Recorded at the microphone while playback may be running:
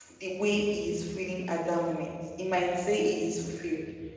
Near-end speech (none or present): present